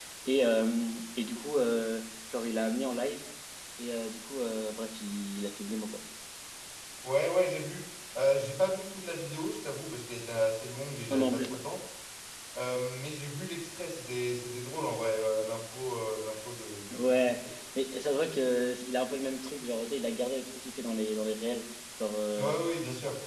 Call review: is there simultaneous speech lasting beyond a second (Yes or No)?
No